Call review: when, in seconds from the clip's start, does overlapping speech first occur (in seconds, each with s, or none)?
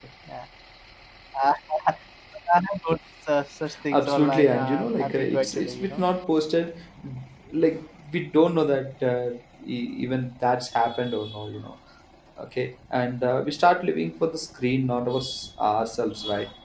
3.9 s